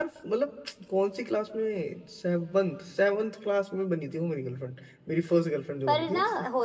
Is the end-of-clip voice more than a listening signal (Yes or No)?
Yes